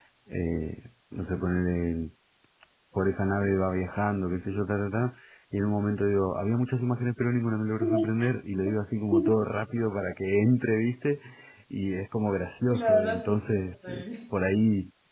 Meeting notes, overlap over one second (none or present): present